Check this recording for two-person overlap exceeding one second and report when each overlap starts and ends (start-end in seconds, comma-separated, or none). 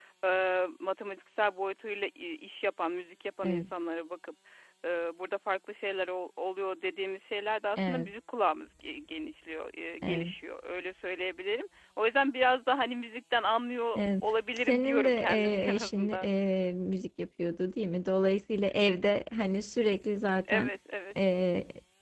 14.6-16.3